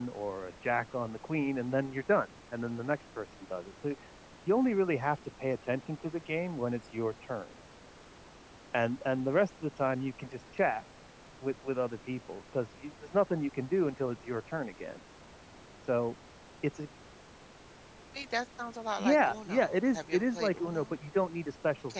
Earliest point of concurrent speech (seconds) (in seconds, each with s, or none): 19.0 s